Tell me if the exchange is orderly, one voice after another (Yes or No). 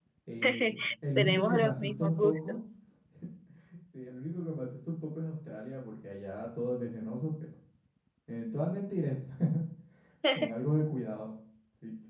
No